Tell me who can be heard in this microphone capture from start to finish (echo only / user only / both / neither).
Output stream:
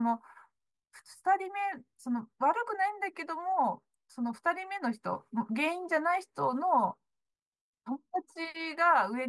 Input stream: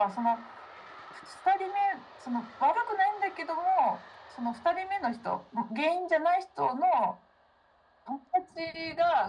echo only